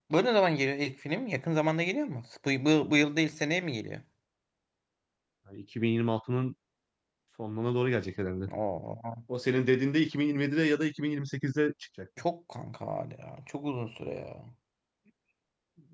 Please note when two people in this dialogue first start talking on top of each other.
none

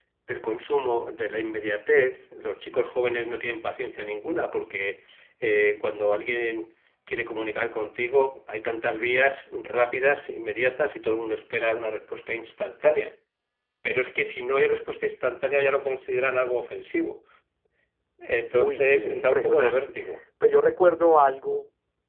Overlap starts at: 18.6 s

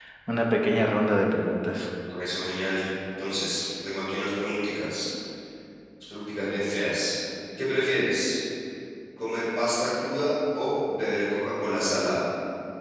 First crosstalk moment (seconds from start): none

